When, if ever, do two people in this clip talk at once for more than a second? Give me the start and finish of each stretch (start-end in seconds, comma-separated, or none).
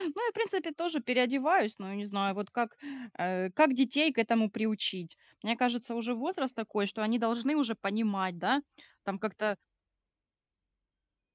none